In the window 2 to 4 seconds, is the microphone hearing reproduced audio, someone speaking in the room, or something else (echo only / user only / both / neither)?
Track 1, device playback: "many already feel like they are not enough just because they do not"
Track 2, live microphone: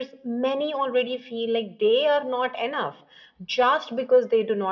echo only